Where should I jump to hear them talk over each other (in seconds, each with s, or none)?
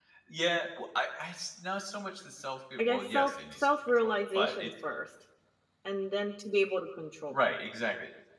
2.8 s